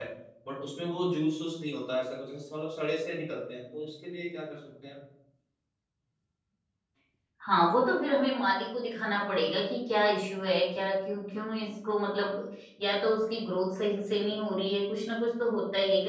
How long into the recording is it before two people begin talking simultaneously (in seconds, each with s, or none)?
none